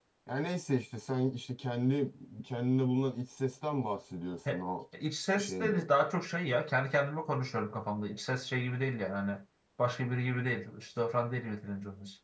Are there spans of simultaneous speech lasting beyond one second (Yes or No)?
No